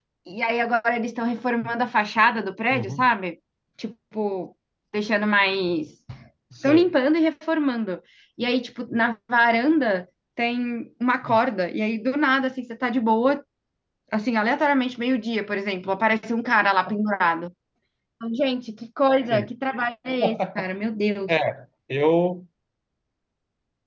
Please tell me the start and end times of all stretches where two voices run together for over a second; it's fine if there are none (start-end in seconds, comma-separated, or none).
none